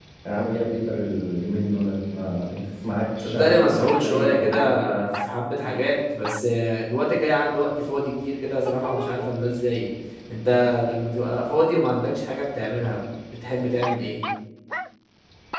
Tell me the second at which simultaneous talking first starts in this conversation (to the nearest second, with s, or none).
3 s